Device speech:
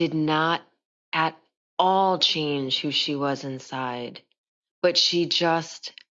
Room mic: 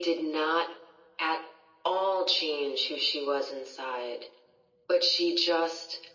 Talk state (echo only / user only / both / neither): echo only